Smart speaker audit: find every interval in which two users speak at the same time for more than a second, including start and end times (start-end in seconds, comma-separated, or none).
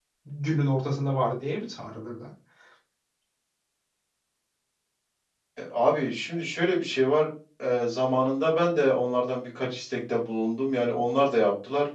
none